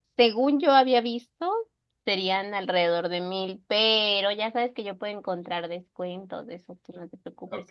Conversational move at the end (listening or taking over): taking over